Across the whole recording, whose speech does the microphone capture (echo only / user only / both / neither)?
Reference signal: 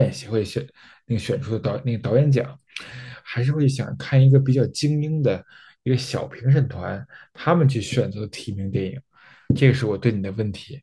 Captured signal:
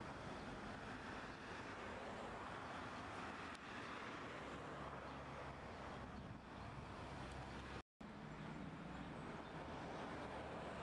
neither